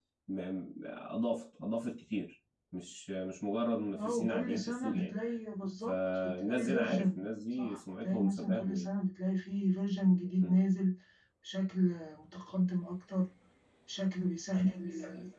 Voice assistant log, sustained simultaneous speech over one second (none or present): present